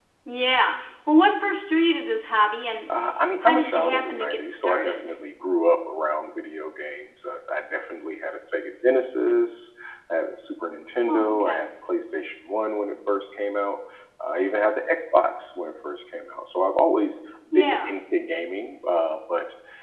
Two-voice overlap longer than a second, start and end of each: 3.4-5.1

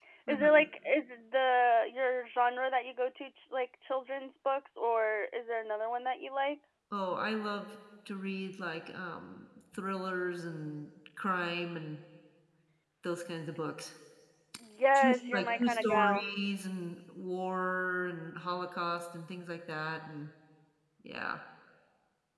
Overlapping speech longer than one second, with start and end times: 14.9-16.2

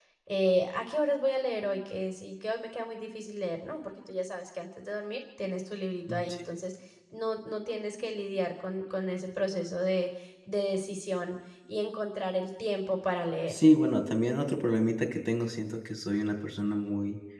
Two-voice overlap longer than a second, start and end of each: none

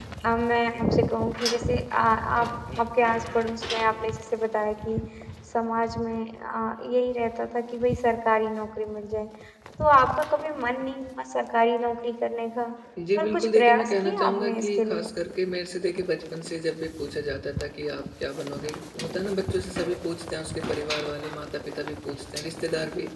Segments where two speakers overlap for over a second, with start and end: 13.2-15.1

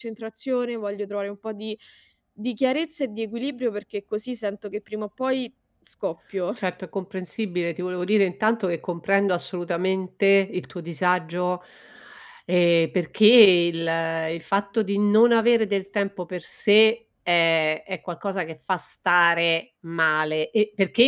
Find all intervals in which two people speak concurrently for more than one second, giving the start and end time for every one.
none

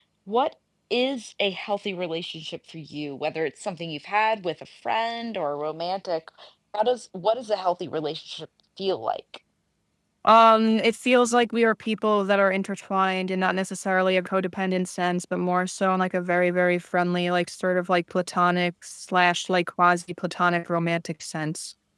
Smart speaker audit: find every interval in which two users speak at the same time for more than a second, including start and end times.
none

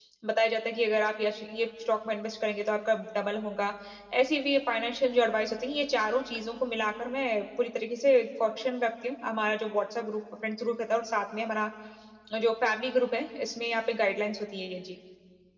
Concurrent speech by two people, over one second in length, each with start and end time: none

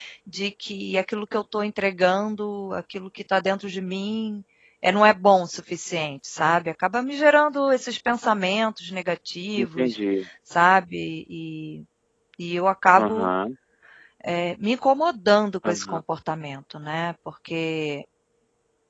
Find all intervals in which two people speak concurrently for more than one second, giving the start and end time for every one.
none

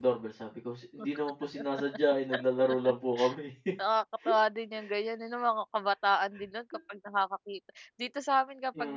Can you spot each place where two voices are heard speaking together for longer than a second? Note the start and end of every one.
none

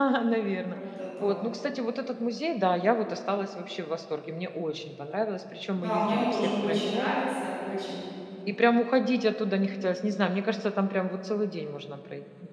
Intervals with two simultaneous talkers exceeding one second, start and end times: 5.8-7.1

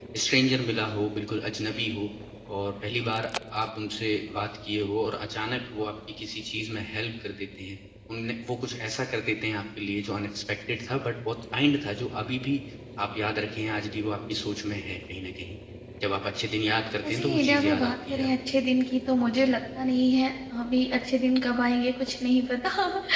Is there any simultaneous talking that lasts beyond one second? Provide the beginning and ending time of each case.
17.1-18.3

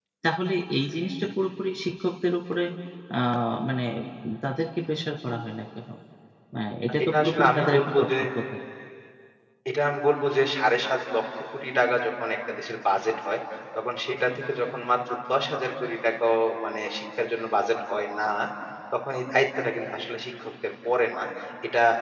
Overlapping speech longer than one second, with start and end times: 6.8-8.1

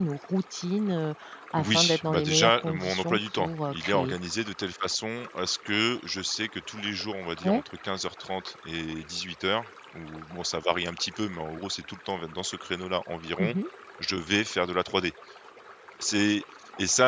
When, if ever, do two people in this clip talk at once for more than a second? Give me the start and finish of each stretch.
1.6-4.2

